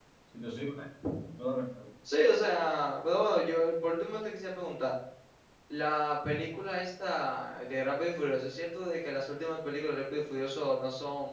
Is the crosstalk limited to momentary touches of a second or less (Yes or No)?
Yes